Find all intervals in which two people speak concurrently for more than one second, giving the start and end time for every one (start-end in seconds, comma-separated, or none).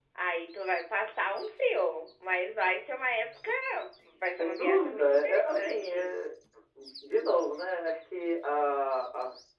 4.4-6.1